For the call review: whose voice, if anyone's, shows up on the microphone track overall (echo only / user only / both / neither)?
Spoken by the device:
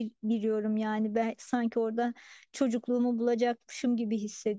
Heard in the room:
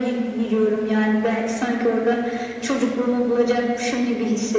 echo only